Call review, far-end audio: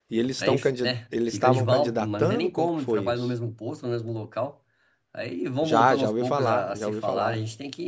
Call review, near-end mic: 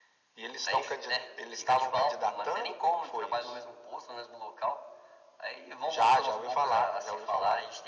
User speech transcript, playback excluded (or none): none